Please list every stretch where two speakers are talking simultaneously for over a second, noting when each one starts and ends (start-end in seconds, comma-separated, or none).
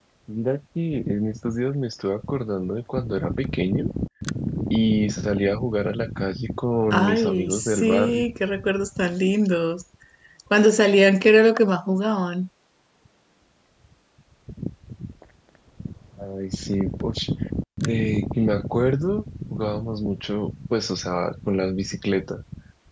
6.9-8.2